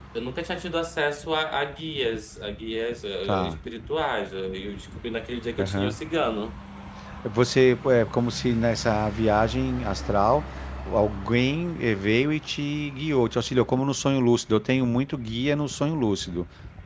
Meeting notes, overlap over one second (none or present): none